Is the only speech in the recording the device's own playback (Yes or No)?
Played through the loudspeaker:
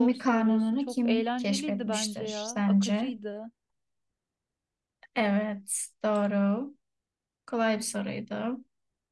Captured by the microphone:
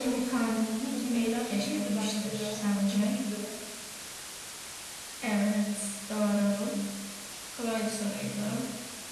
Yes